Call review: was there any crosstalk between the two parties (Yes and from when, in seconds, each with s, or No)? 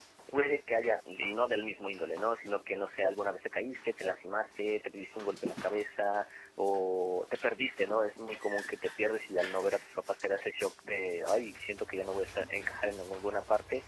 No